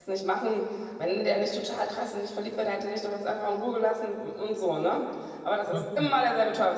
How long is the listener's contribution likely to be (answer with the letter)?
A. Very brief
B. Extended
A